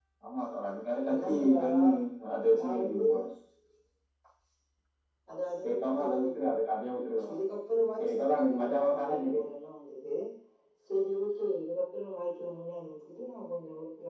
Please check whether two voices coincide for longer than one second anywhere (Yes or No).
Yes